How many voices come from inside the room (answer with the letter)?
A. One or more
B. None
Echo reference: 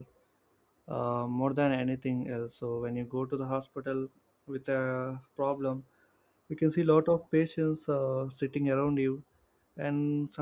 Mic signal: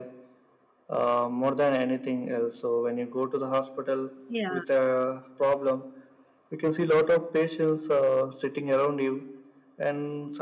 A